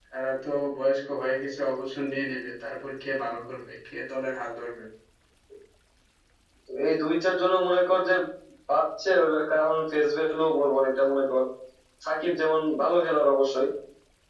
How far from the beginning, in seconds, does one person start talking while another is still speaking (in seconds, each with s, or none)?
none